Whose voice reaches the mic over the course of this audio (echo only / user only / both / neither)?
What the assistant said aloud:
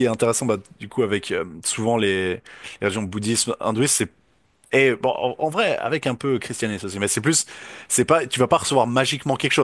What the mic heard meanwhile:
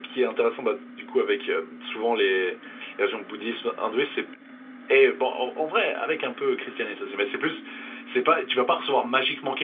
echo only